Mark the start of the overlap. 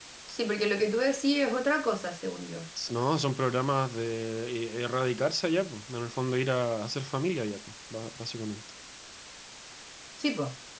none

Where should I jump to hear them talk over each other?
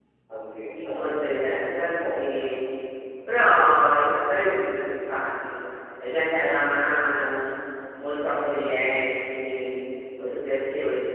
0.9 s

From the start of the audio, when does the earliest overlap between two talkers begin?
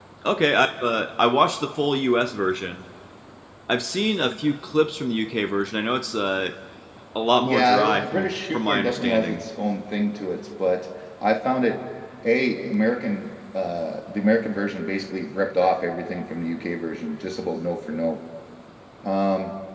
7.4 s

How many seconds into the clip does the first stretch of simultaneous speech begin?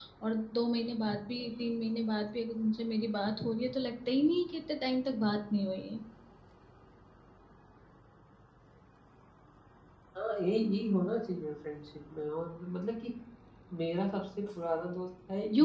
none

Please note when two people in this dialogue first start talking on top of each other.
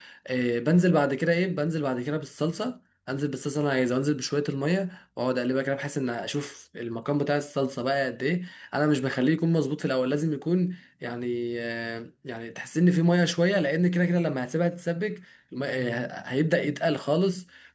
none

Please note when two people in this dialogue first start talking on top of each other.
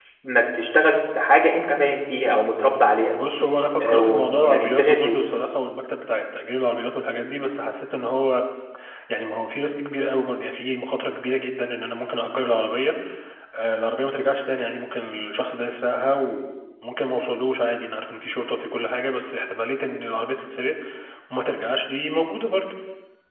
3.8 s

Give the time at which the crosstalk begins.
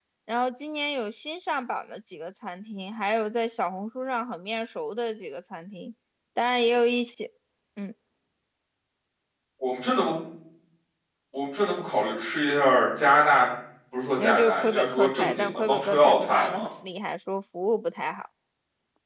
14.2 s

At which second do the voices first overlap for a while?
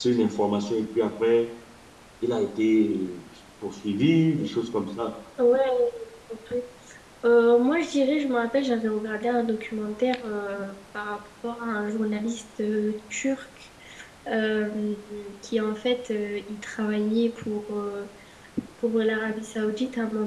none

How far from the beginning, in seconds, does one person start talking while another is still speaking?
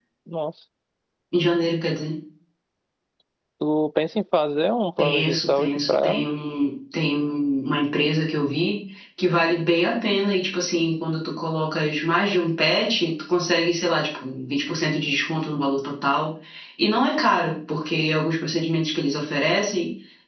5.0 s

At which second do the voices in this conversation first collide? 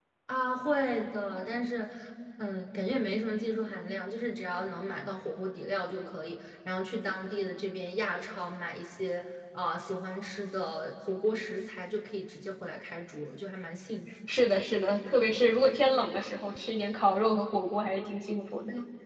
none

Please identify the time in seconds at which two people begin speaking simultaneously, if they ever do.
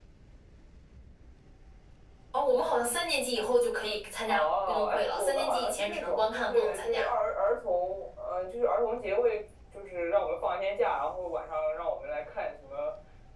4.3 s

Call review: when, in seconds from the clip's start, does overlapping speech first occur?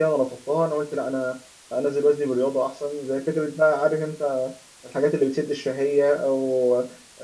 none

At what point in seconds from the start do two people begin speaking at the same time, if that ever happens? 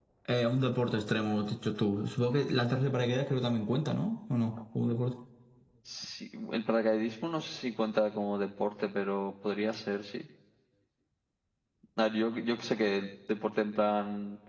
none

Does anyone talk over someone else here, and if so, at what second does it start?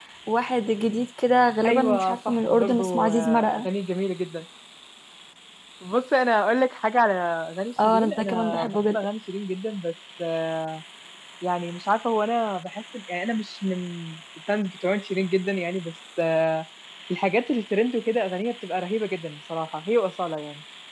1.6 s

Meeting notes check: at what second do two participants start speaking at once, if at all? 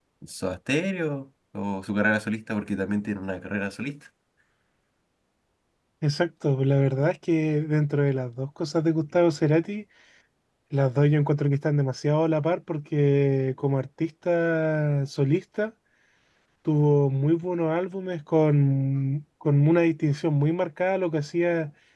none

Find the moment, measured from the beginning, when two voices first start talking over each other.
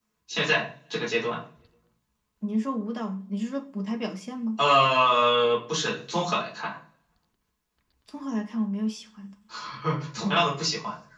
none

